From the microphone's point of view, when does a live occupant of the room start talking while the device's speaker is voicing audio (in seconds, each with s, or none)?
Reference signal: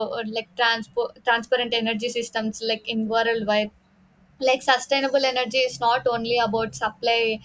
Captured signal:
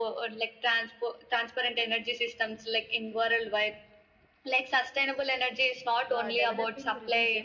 6.2 s